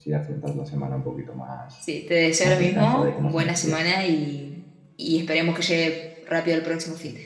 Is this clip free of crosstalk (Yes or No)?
No